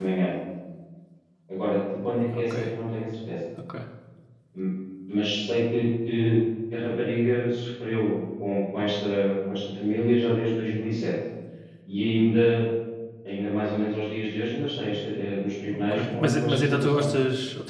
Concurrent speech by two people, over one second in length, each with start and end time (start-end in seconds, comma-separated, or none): 15.7-17.1